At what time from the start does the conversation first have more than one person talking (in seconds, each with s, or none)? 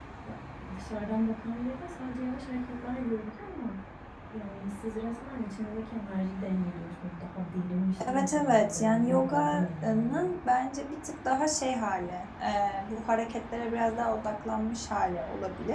8.0 s